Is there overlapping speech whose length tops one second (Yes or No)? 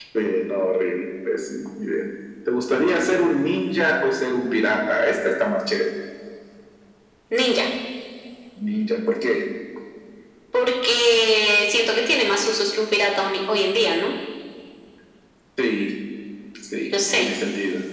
No